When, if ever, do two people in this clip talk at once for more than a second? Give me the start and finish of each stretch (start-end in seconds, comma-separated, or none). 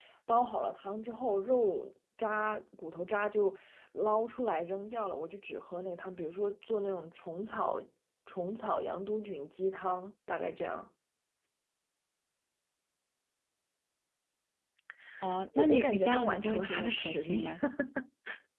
15.6-17.4